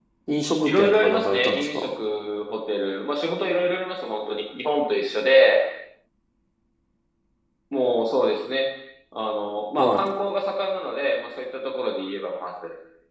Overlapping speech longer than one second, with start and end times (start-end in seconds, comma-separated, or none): 0.6-1.9